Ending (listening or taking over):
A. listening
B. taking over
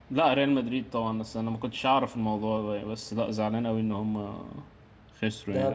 B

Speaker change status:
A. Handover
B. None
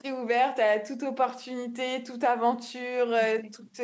B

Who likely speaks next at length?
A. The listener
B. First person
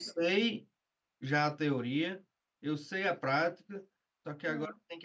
B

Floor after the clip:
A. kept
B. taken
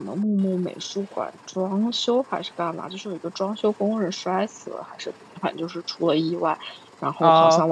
A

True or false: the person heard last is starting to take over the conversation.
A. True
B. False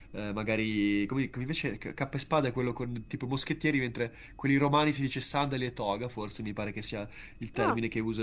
B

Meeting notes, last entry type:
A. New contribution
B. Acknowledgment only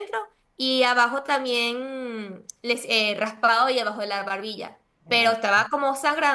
B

